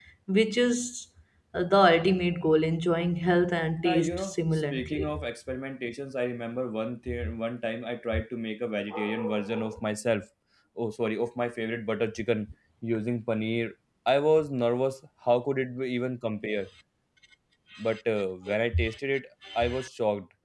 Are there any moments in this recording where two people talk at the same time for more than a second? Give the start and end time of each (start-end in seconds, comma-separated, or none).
3.8-5.2